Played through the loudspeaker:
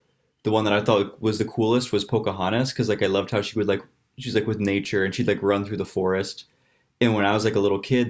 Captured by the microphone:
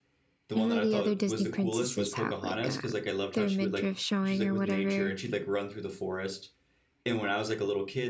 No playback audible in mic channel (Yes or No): No